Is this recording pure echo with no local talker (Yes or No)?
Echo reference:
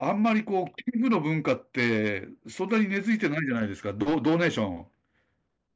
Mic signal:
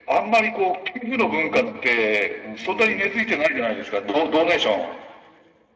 No